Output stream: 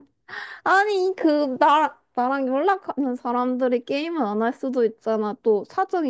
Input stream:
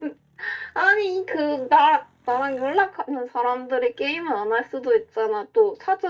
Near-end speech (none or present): none